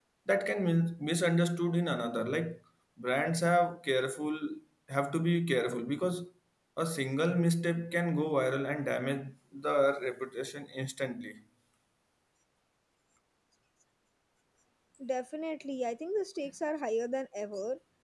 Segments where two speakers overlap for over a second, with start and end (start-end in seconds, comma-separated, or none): none